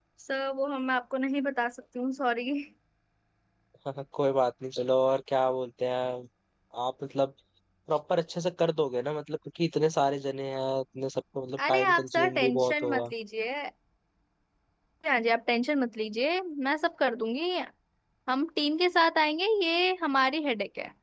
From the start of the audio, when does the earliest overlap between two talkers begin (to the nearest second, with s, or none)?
12 s